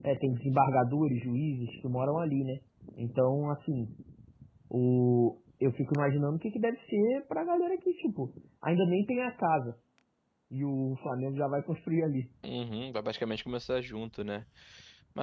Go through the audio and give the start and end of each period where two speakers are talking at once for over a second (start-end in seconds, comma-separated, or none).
none